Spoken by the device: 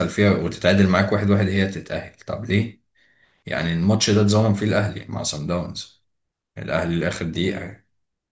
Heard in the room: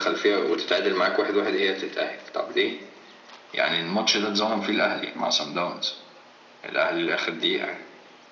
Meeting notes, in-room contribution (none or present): none